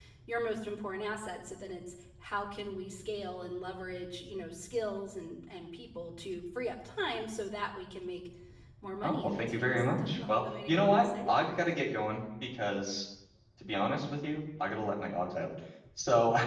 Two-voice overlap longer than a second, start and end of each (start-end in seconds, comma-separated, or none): 9.0-11.7